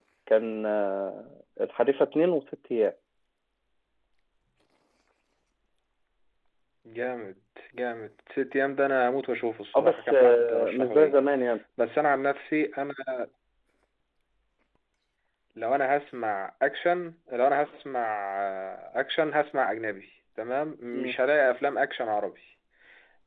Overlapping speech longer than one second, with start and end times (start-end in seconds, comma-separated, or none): 9.8-11.2